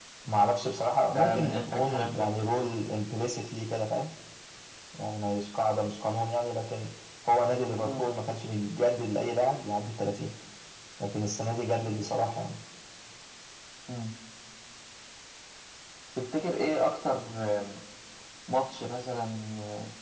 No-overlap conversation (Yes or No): No